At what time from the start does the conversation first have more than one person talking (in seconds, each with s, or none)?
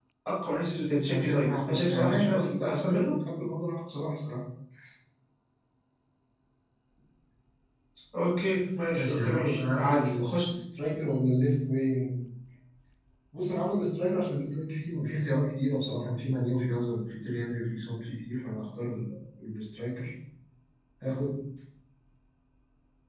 1.1 s